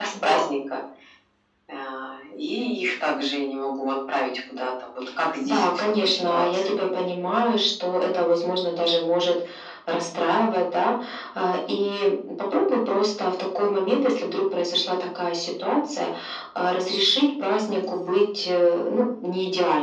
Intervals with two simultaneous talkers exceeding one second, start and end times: 5.4-6.8

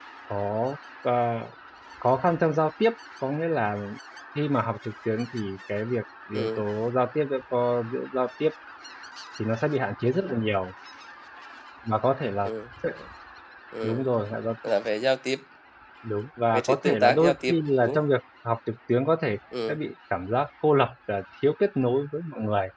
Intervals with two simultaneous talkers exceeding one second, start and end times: 16.5-18.0

